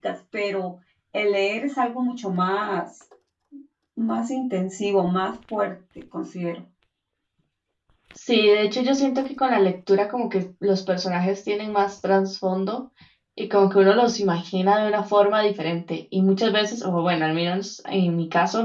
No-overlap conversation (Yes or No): Yes